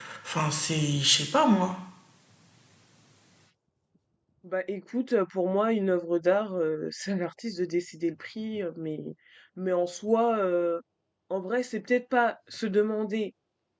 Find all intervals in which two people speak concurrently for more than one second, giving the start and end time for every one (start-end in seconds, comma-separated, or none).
none